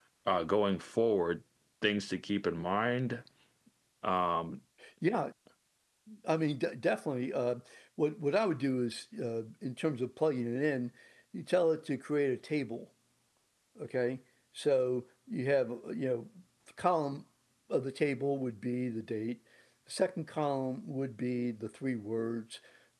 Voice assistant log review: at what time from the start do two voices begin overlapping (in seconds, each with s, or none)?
none